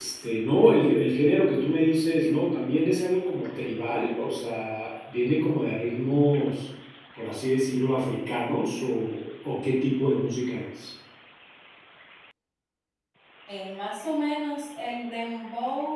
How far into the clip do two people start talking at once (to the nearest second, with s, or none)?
none